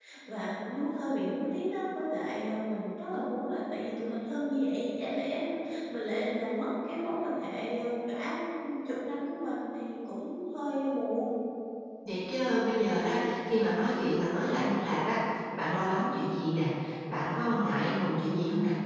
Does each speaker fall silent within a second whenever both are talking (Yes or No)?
Yes